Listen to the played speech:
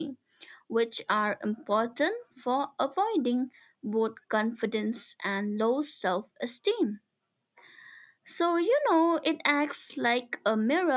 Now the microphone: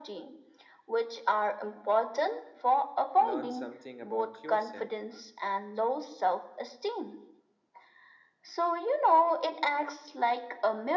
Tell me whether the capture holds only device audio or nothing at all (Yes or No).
No